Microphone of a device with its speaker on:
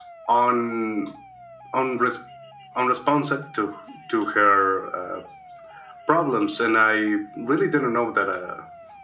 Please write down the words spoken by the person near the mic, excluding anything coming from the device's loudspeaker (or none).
none